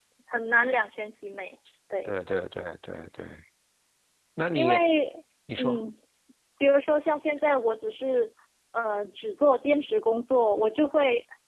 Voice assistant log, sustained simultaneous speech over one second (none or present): none